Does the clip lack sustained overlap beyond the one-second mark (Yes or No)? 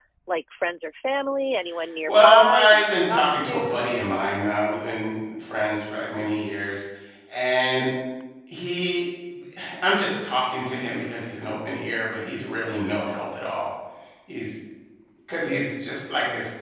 No